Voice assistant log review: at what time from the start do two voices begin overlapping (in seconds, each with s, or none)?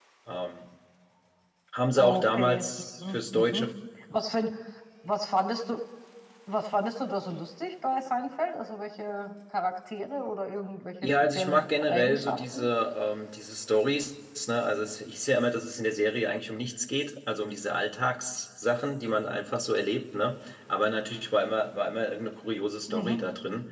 2.0 s